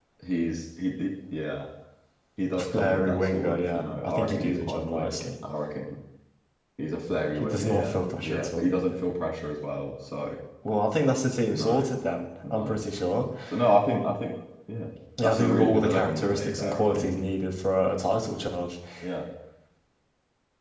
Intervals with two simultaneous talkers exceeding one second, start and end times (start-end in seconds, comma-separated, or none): 2.6-5.1, 7.4-8.7, 15.2-17.1